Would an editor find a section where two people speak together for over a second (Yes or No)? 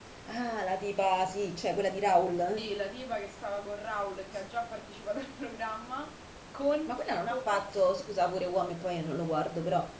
No